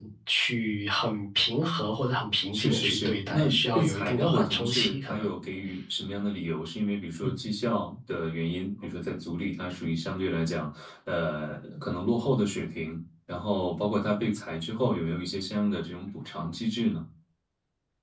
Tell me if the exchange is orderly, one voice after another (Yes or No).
No